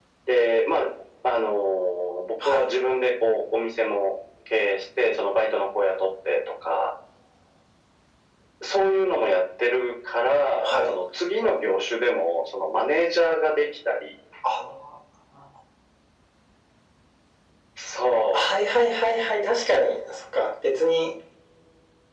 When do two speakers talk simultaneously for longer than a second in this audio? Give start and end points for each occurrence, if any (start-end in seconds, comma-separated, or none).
none